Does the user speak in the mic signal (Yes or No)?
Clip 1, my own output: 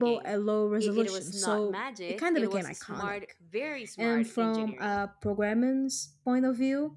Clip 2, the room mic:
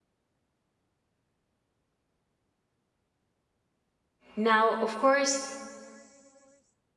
Yes